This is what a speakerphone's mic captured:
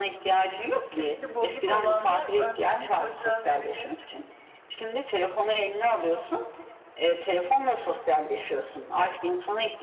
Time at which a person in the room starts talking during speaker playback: 1.0 s

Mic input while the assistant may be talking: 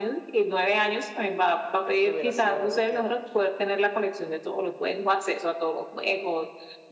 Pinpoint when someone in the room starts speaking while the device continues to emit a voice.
1.8 s

